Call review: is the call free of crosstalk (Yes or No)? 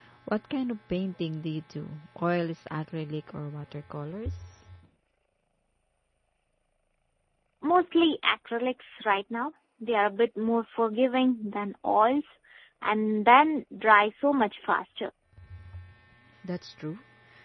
Yes